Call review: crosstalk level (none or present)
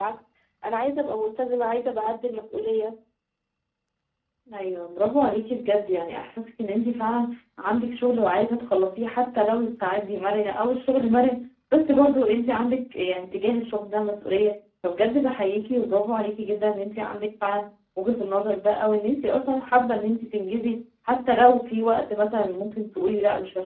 none